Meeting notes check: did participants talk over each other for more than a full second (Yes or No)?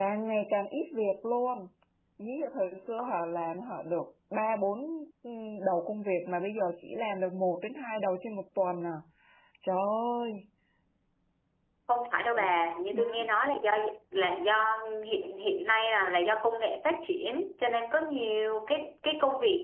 No